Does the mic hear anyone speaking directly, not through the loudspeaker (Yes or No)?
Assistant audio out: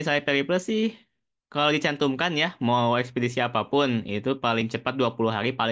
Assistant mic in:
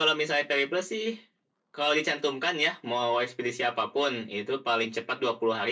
No